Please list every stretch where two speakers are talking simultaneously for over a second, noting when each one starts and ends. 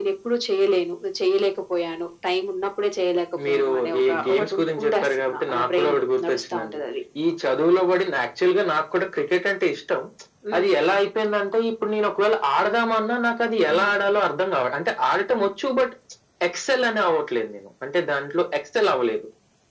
3.5-6.8

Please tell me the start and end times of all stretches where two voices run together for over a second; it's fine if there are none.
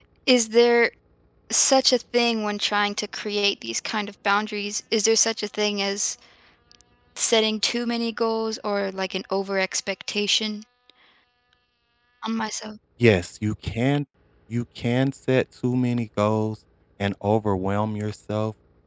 none

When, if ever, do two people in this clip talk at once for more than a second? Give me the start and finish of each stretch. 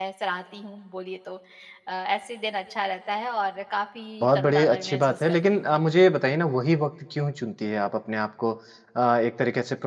4.2-5.6

